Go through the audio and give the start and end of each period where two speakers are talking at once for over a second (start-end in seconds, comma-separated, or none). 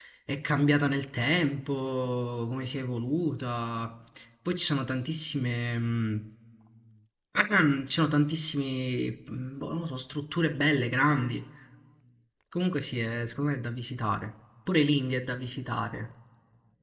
none